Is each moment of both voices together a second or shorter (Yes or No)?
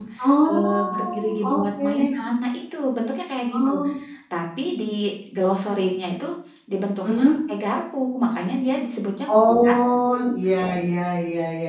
No